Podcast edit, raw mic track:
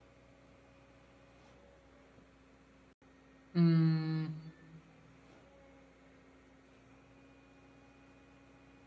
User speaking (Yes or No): Yes